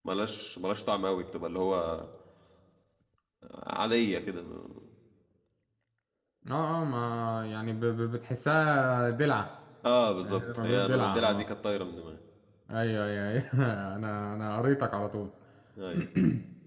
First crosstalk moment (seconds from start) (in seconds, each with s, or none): 10.2 s